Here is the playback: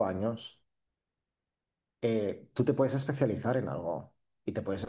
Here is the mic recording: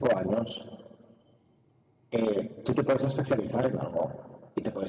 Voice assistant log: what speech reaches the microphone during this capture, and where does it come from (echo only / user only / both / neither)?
echo only